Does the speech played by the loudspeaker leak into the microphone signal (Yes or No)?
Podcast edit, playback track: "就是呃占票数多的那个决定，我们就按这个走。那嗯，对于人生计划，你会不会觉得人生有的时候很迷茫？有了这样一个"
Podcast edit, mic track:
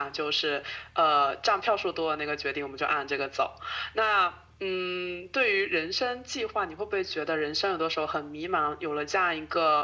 Yes